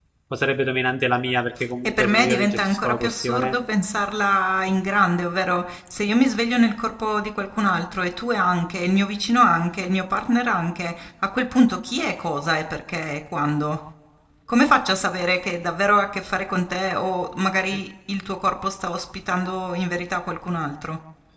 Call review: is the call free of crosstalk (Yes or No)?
No